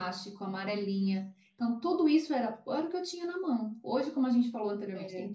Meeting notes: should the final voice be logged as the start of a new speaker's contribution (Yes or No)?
No